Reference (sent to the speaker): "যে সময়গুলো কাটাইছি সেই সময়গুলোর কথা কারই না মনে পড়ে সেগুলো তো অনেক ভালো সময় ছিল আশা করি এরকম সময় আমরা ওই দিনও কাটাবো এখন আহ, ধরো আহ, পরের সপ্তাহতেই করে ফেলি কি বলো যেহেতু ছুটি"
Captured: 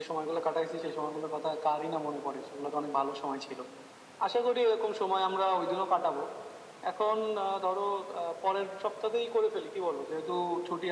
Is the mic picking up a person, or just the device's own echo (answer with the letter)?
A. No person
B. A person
A